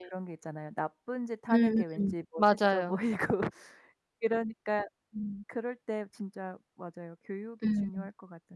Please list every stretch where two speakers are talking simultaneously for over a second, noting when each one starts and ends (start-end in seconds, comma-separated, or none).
1.5-3.0